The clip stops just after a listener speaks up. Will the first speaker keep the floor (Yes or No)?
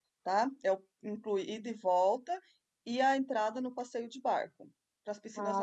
No